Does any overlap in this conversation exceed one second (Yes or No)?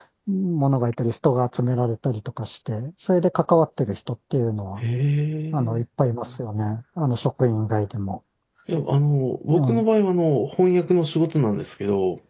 No